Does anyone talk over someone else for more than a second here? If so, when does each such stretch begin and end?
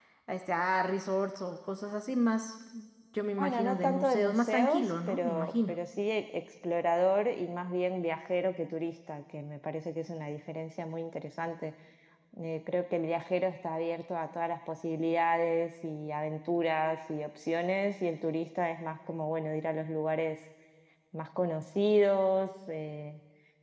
3.4-5.7

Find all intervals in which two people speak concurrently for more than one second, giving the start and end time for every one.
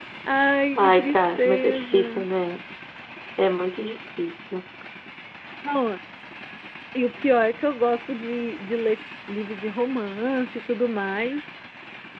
0.8-2.3

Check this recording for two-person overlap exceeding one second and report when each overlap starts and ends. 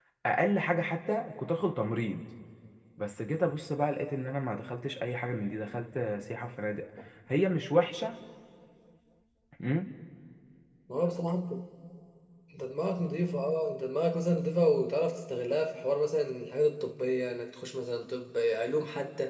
none

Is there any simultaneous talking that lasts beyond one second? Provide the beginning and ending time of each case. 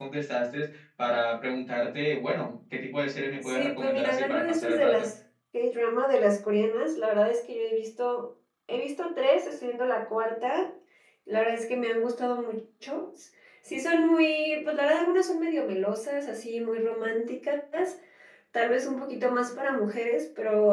3.4-5.1

